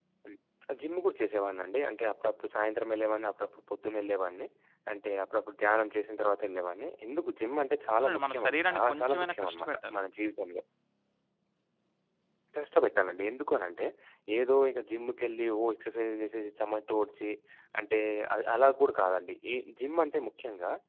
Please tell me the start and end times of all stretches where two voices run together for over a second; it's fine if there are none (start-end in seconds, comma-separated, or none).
8.0-10.0